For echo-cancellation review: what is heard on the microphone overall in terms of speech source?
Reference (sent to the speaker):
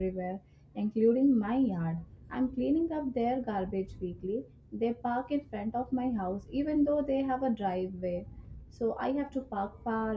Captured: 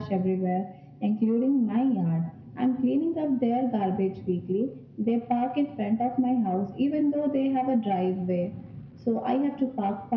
echo only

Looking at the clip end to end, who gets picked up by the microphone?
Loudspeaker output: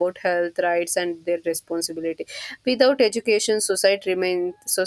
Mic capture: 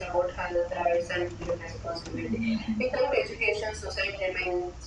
both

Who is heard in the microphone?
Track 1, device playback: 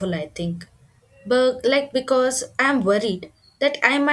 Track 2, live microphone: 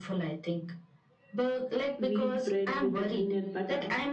both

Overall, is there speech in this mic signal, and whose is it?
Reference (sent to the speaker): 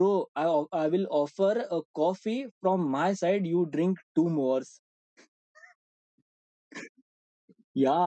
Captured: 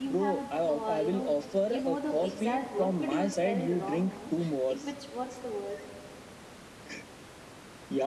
both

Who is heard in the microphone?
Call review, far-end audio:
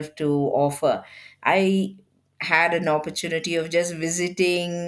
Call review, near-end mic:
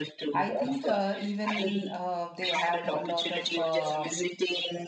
both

